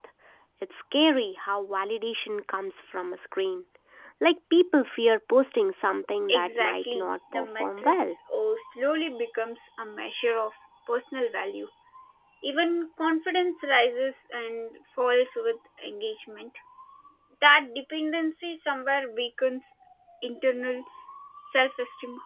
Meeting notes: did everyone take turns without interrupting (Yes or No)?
No